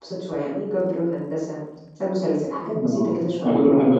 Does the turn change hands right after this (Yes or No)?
Yes